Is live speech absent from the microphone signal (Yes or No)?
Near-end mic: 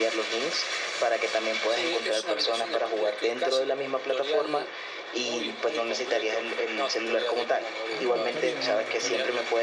No